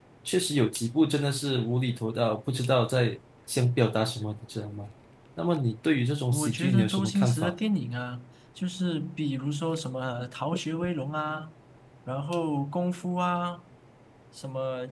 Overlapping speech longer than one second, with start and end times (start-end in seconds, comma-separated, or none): 6.3-7.5